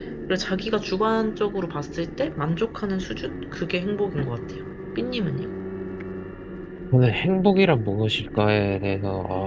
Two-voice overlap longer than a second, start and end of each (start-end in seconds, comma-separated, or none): none